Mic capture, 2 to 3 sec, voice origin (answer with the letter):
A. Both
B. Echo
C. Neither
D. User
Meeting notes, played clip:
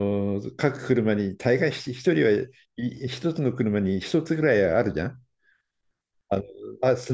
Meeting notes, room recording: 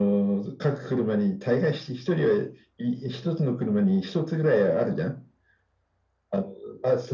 B